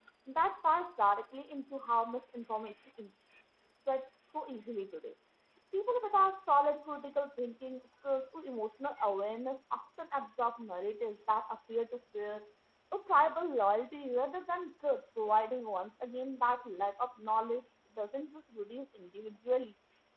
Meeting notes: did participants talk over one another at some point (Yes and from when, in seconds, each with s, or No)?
No